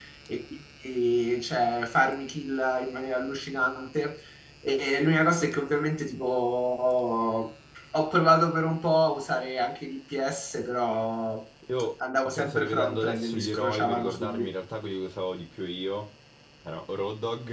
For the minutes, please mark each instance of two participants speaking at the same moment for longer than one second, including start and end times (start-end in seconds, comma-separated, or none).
12.2-14.5